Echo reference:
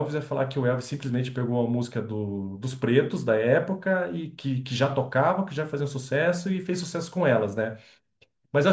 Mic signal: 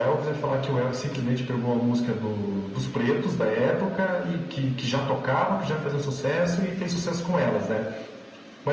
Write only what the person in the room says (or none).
none